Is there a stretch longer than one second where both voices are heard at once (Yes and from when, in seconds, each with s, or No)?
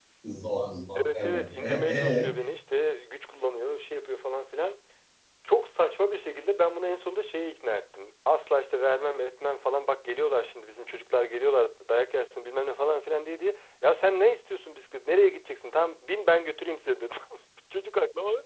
Yes, from 1.0 s